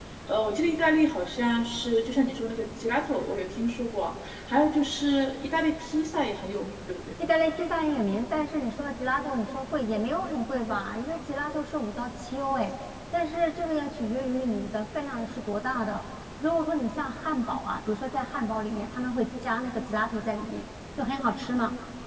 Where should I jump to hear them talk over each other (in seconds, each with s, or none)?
none